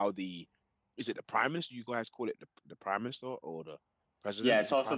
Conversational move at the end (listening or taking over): taking over